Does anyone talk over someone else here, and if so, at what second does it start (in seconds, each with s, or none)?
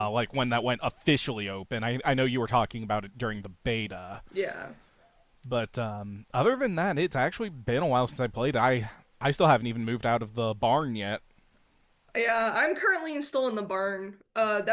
none